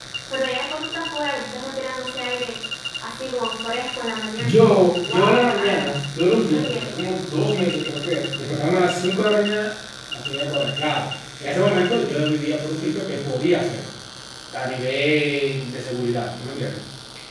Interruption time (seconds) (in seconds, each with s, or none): 4.4 s